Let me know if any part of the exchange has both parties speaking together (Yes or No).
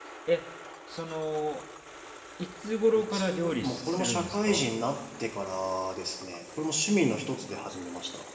Yes